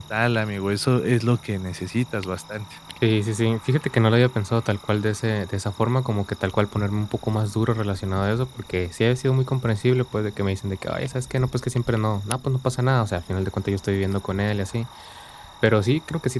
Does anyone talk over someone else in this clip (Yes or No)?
No